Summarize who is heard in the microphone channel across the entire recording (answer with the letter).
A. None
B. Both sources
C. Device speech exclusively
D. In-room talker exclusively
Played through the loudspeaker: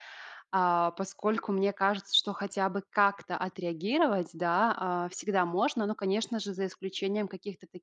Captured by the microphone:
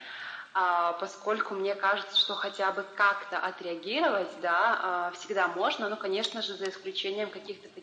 C